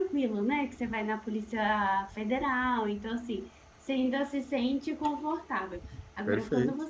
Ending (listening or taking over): listening